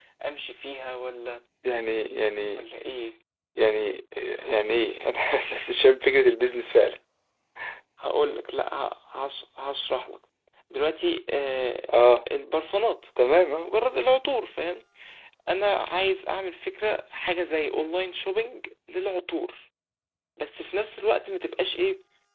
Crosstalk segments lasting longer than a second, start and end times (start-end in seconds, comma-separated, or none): none